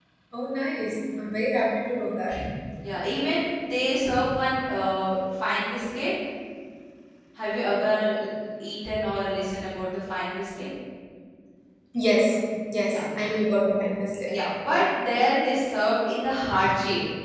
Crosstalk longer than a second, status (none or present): none